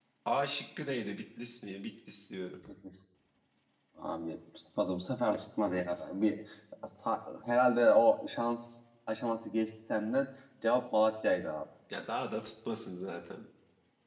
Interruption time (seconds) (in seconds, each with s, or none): none